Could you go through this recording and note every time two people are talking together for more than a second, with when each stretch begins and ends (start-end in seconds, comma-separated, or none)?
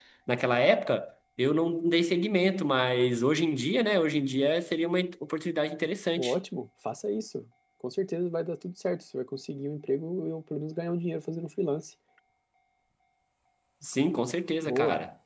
none